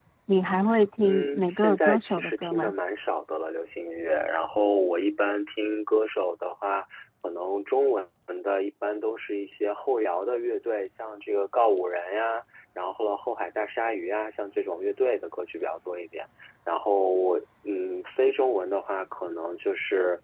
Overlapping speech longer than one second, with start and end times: 1.0-2.7

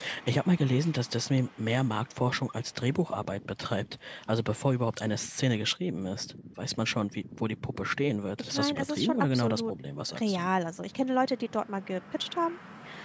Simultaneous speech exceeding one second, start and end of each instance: 8.4-9.7

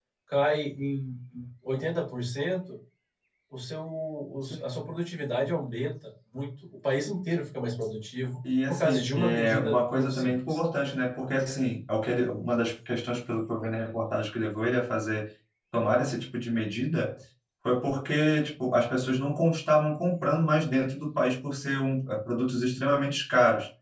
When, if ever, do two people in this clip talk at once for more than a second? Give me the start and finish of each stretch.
8.7-10.6

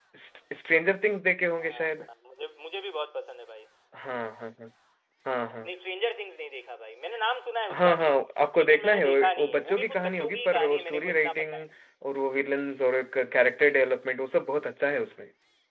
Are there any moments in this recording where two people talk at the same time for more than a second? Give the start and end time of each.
8.6-11.6

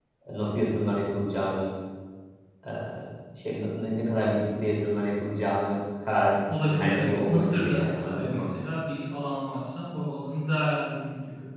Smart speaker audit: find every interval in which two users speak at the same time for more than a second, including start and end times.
6.6-8.5

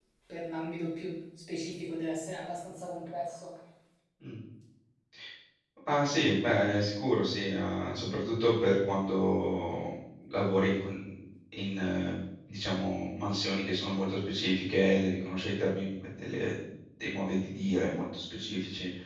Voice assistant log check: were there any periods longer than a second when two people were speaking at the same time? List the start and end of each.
none

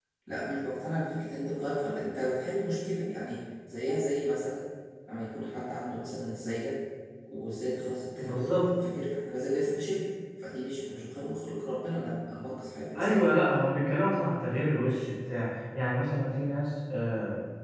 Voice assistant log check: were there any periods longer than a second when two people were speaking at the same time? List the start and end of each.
none

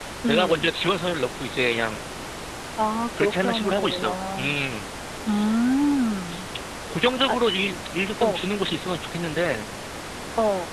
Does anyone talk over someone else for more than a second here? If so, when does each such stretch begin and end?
3.2-4.5

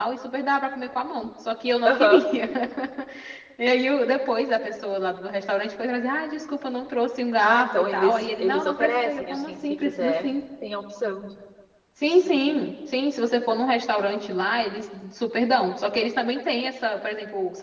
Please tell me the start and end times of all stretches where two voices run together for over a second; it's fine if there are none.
7.4-10.3

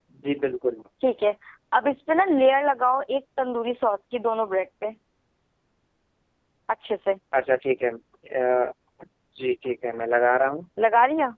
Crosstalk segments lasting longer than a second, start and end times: none

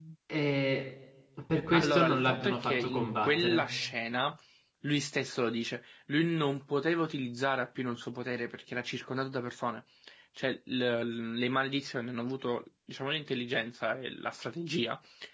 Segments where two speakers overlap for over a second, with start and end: 1.7-3.7

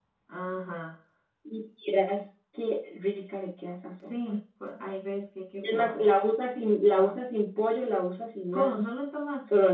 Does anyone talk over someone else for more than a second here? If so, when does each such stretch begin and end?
none

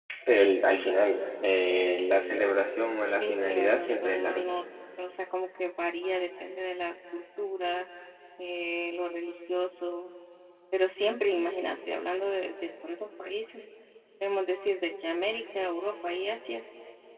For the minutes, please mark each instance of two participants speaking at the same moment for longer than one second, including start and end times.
3.2-4.5

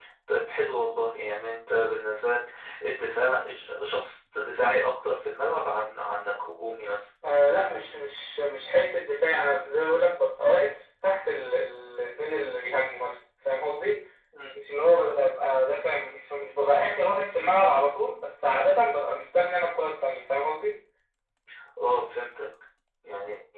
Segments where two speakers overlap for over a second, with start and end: none

